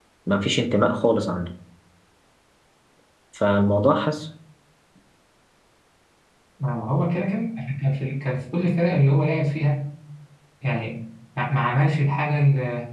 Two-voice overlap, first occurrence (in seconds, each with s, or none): none